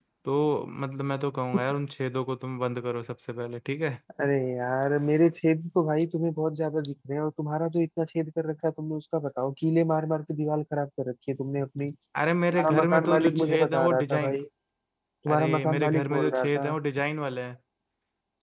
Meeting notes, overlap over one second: present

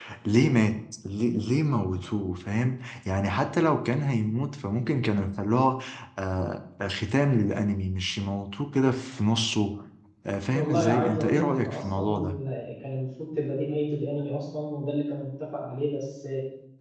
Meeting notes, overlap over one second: present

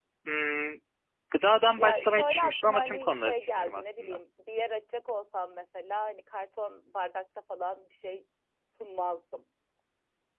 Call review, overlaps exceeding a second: present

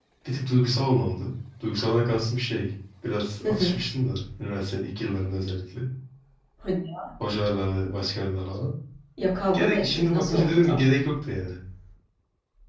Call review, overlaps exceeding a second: present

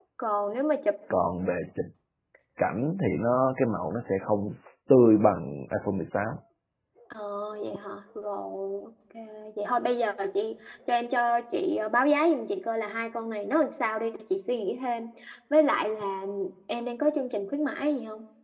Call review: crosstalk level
none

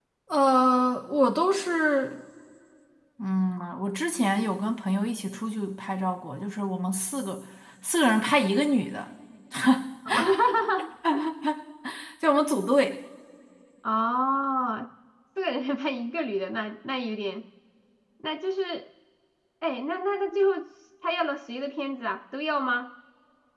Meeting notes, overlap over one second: none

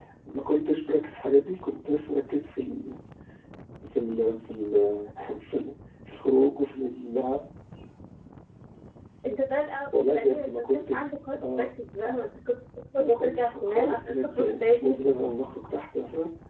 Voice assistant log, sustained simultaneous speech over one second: present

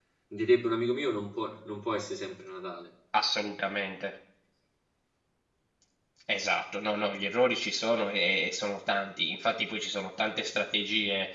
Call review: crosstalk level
none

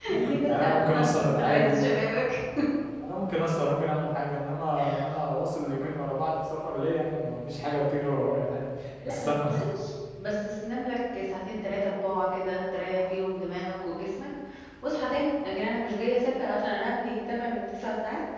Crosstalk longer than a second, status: present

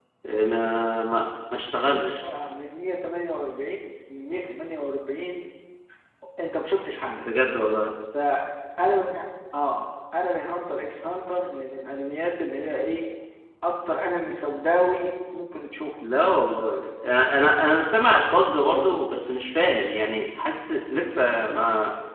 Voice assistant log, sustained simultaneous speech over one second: none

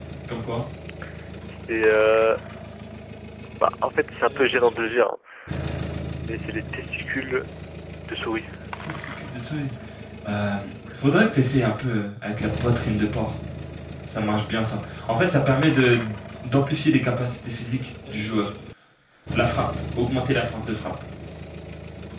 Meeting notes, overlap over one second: none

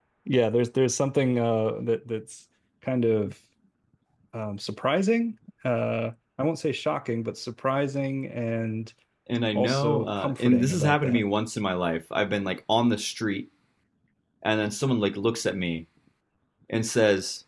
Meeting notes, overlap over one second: present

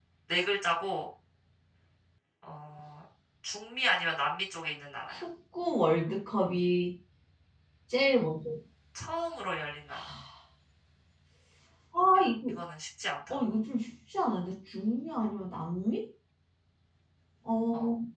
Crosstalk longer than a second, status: none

